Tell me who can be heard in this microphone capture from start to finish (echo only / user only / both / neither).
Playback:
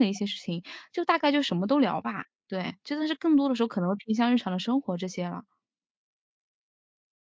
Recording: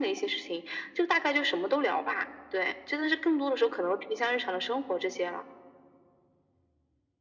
echo only